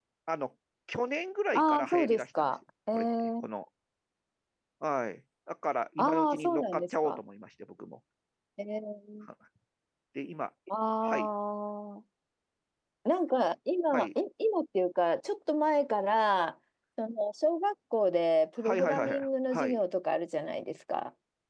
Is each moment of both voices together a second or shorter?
No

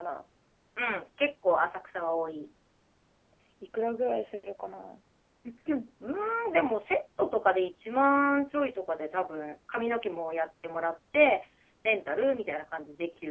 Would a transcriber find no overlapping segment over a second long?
Yes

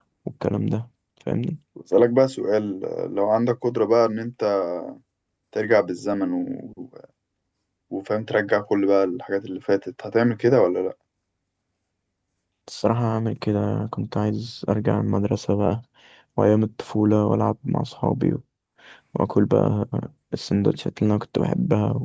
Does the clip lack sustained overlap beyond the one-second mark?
Yes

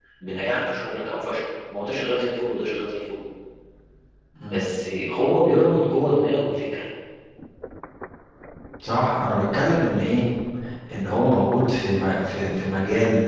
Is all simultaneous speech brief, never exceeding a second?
Yes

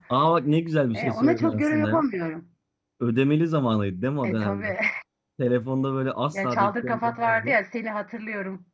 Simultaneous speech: Yes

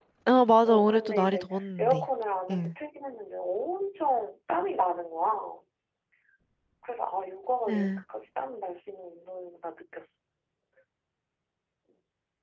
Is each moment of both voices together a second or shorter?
No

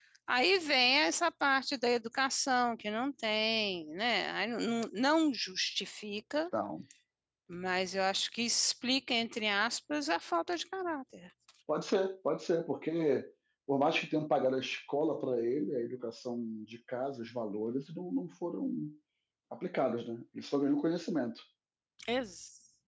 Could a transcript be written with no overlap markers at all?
Yes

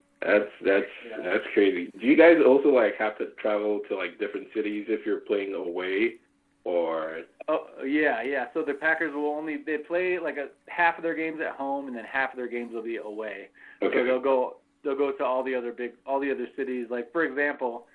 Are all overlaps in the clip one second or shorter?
Yes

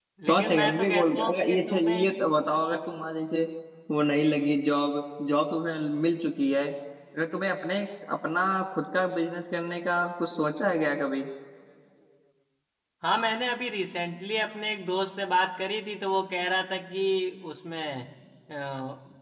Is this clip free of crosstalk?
No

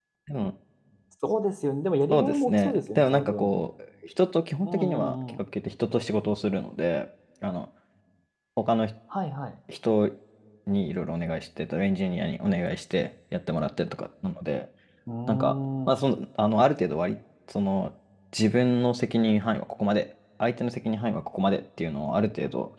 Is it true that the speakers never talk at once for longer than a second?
No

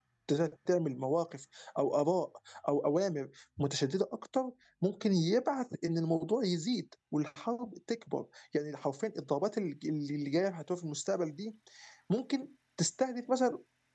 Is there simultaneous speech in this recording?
No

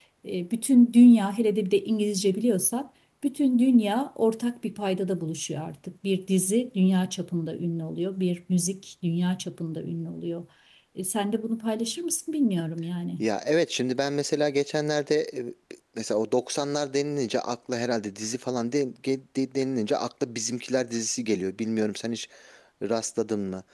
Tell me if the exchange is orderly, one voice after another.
Yes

